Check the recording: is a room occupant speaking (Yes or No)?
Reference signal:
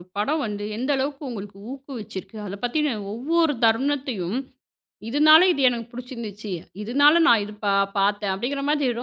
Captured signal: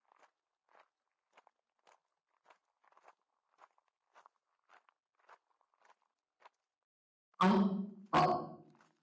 Yes